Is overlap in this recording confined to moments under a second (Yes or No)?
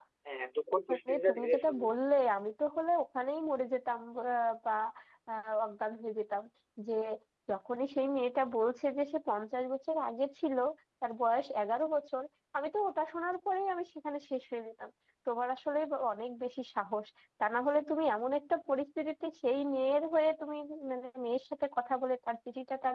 No